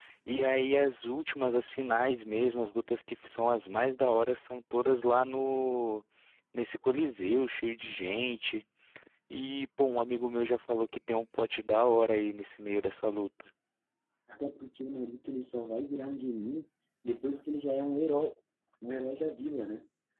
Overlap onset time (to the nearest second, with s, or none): none